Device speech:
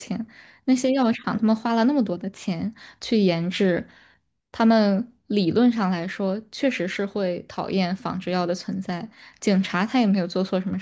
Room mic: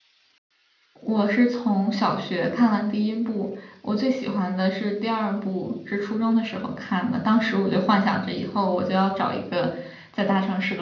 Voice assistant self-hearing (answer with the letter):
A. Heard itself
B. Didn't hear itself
B